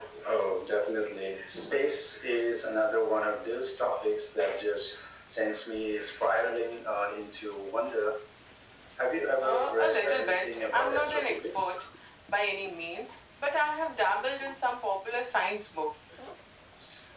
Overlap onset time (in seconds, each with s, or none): 9.4 s